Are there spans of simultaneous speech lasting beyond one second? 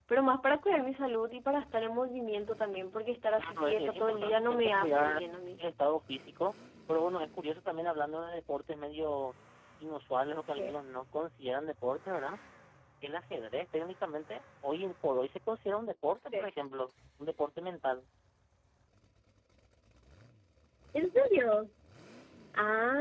Yes, from 3.4 s

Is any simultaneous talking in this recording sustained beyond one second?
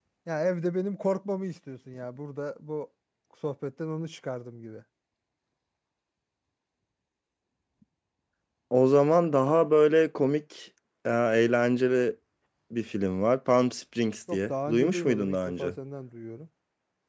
Yes, from 14.3 s

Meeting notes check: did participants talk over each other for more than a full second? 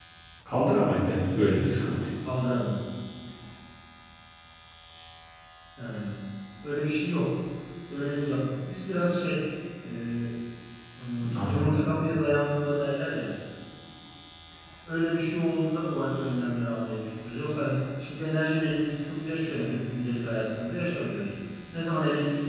No

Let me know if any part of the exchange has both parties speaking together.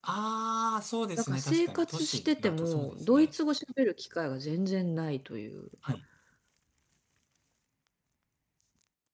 Yes, from 1.2 s

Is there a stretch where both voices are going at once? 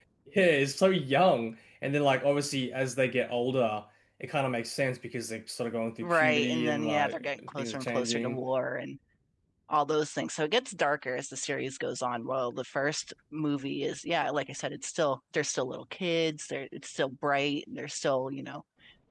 Yes, from 6.0 s

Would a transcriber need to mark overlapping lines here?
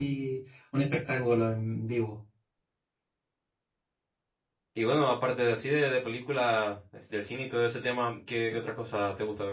No

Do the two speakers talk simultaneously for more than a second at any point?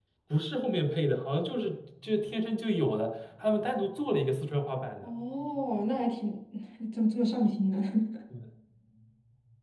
No

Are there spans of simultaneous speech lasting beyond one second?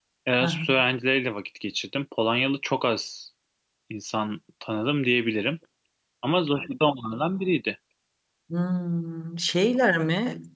No

